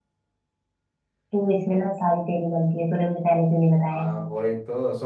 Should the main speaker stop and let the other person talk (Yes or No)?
Yes